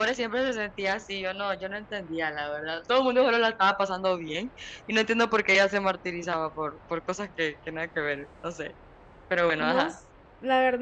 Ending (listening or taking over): taking over